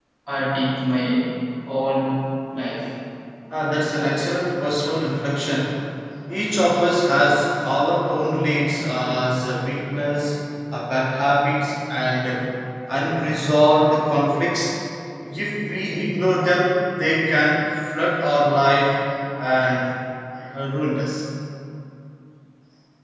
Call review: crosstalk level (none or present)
none